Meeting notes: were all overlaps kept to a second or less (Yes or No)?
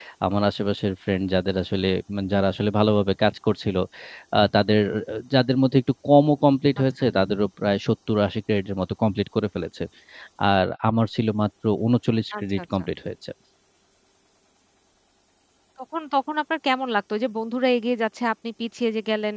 Yes